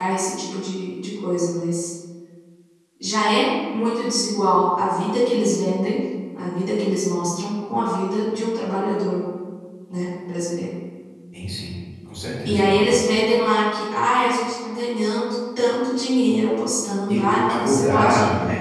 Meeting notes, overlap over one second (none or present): present